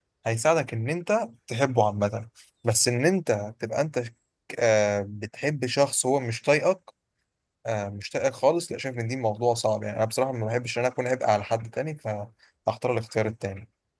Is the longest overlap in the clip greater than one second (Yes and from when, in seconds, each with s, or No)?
No